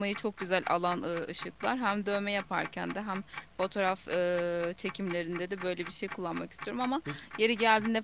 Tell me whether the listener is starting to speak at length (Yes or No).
No